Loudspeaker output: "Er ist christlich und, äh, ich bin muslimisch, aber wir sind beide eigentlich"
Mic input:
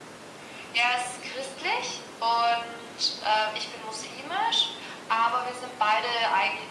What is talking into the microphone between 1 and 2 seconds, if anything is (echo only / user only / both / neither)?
echo only